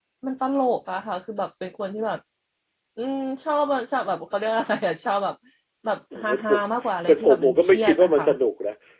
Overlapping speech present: Yes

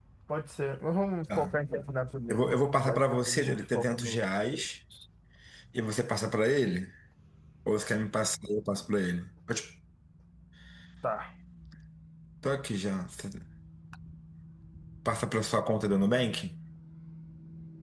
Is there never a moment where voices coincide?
No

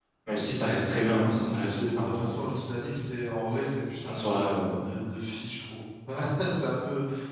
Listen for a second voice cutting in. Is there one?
Yes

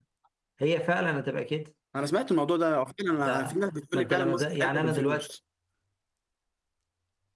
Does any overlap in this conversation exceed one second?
Yes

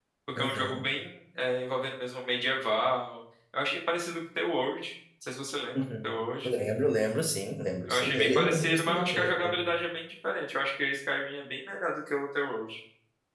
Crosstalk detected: Yes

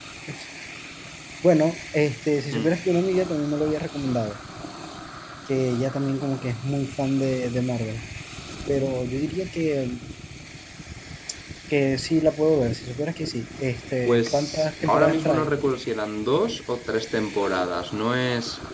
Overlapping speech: Yes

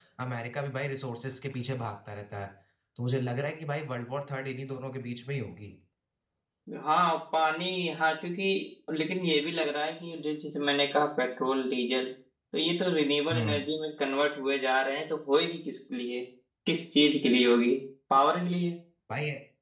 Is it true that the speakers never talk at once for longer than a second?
Yes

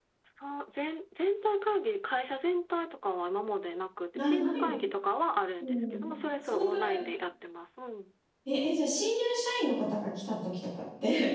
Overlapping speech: Yes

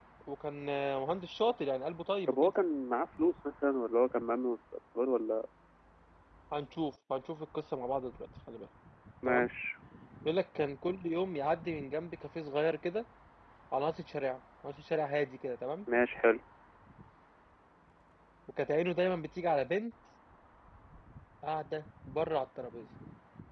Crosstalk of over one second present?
No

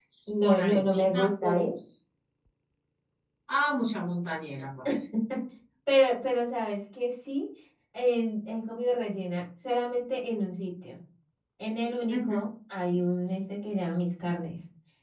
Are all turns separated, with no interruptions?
No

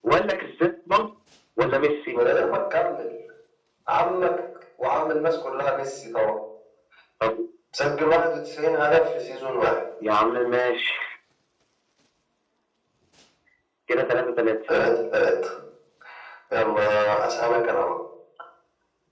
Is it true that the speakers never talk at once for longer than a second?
Yes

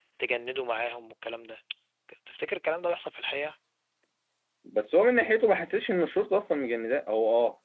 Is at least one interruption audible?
No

